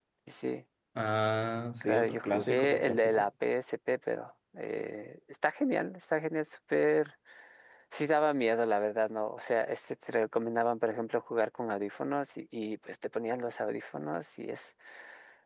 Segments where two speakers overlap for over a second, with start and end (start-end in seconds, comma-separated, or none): 1.8-3.3